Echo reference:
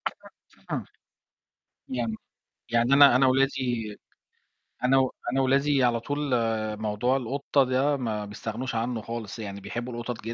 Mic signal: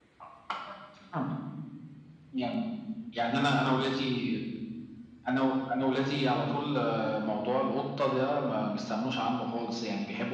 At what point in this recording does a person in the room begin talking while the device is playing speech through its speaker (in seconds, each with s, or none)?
none